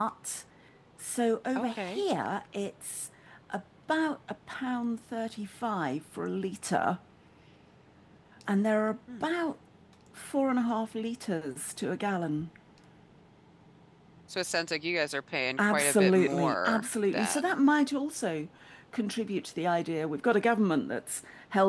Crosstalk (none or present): present